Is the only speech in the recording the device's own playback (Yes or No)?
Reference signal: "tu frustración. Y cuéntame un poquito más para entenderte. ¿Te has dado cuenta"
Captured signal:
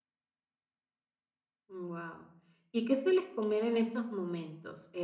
No